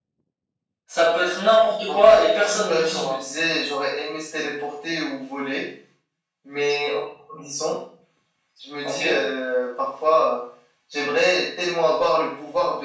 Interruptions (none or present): present